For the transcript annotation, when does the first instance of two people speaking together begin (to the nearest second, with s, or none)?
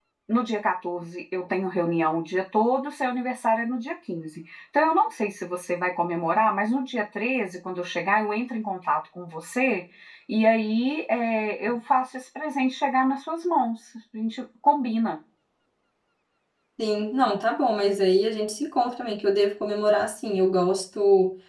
none